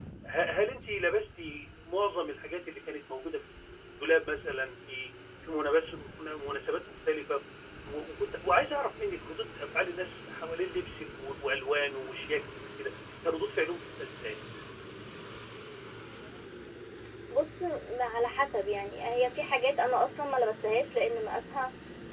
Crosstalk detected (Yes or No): No